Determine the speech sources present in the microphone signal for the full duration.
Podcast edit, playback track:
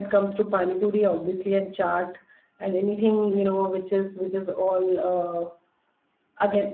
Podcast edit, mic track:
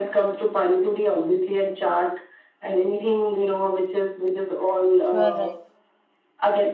both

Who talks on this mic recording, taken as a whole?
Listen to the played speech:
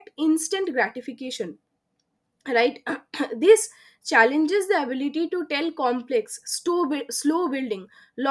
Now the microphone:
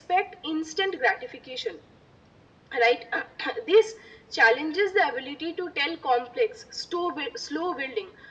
echo only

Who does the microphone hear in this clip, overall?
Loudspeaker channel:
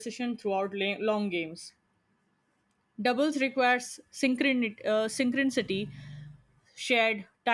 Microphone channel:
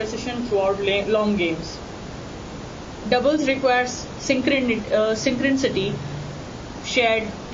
echo only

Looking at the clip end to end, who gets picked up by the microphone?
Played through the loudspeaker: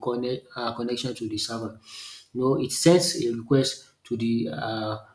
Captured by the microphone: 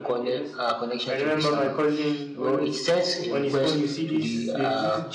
both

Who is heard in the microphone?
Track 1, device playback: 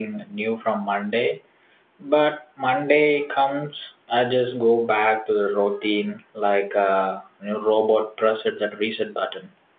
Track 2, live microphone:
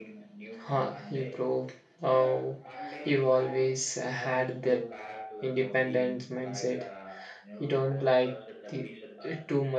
both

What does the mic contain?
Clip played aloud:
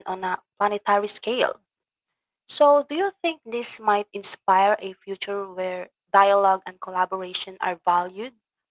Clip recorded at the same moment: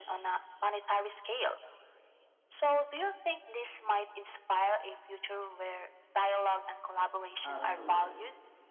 both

